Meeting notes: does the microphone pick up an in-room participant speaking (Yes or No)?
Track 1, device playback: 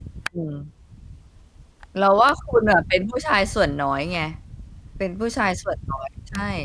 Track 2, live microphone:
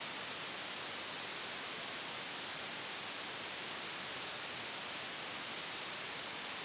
No